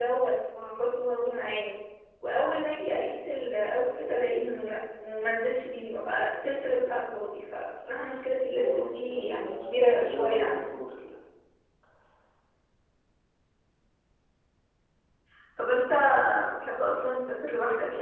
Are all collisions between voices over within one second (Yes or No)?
No